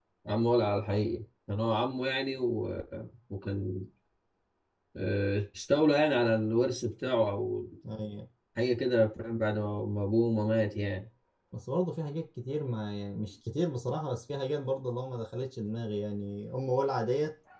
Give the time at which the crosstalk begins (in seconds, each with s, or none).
none